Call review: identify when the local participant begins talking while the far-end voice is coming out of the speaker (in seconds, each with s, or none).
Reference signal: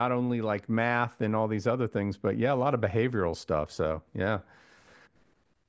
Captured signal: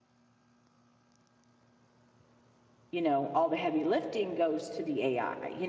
2.9 s